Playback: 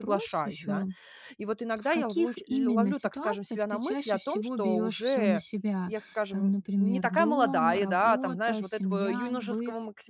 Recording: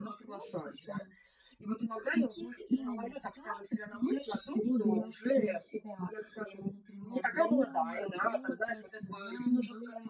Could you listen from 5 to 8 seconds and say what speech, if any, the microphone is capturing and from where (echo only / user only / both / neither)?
echo only